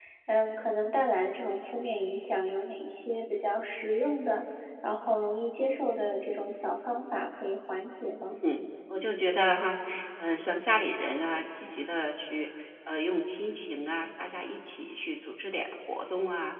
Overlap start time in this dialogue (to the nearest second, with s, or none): none